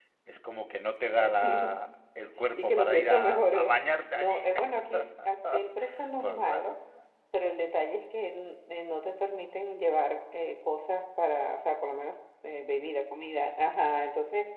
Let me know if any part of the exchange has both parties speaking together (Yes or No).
Yes